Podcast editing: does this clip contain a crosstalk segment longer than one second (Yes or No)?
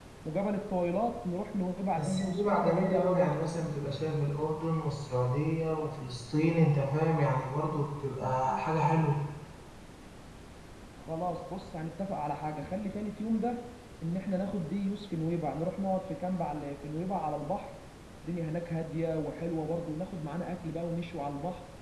Yes